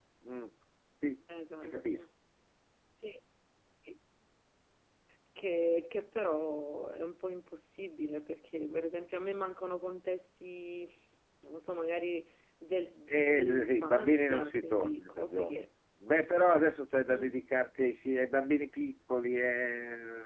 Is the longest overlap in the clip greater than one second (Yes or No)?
Yes